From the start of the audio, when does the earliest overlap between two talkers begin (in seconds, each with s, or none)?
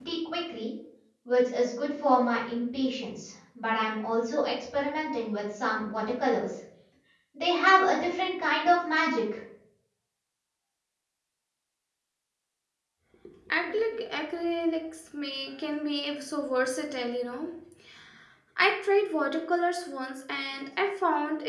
none